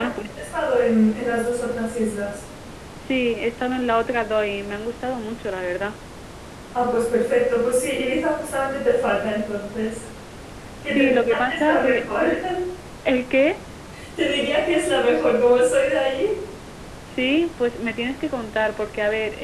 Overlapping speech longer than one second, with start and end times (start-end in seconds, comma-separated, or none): 10.8-12.1